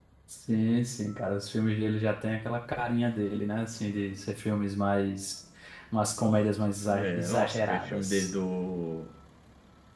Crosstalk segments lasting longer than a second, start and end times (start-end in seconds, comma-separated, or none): 7.0-8.3